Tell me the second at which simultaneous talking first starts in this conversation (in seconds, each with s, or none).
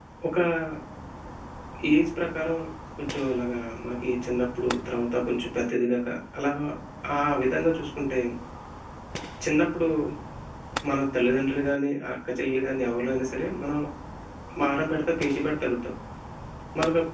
none